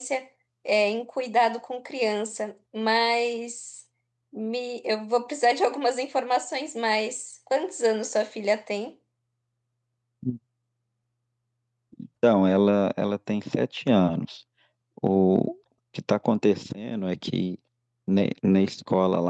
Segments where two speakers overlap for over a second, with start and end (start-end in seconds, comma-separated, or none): none